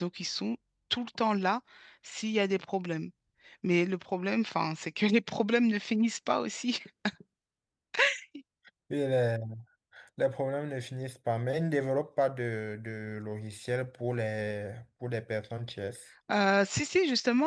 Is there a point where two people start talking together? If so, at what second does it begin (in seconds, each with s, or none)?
none